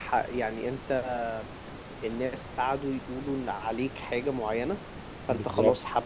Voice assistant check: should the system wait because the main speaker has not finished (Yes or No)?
Yes